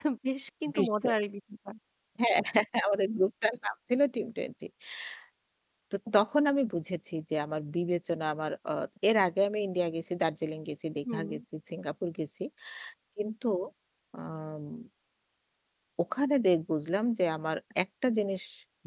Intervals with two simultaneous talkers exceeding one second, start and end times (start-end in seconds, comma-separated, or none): none